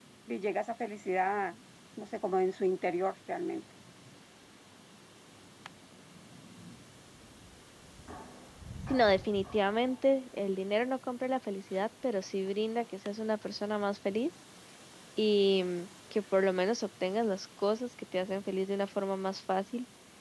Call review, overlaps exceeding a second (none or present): none